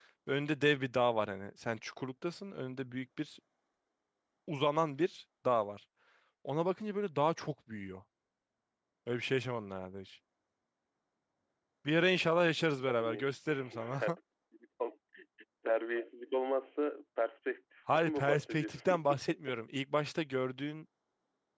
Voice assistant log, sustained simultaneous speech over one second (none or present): present